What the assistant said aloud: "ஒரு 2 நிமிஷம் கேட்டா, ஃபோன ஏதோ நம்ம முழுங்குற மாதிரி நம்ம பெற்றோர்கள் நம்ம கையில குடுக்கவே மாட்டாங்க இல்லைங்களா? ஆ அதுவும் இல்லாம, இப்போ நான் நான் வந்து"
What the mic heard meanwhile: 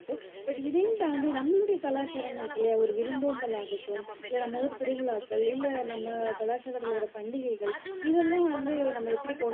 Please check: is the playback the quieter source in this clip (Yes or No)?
Yes